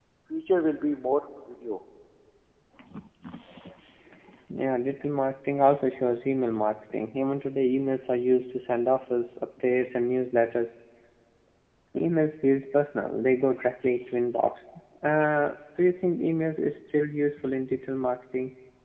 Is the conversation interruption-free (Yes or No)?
Yes